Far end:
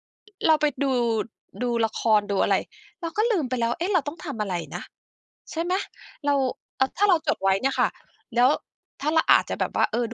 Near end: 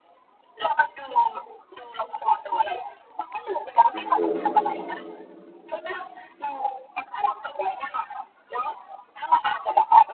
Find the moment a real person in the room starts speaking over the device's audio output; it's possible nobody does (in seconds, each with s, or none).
3.9 s